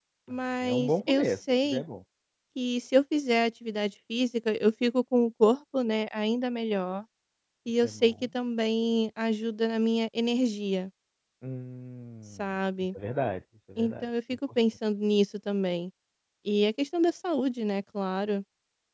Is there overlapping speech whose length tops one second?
Yes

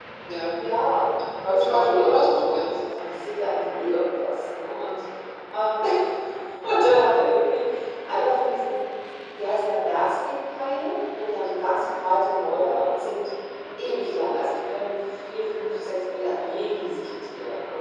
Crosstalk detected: Yes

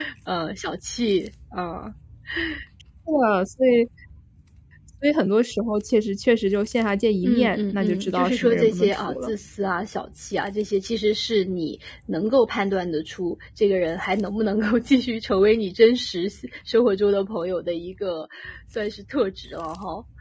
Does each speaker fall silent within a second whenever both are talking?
No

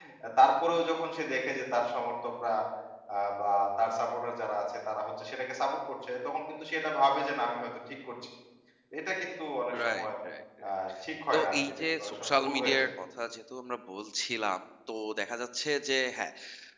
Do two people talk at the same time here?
Yes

